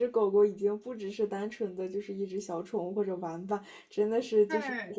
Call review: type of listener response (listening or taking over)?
taking over